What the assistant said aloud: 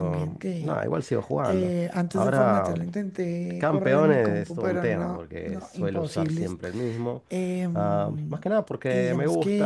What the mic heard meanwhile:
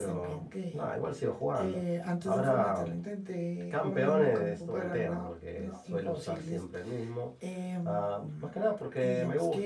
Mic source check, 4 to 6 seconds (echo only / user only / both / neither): echo only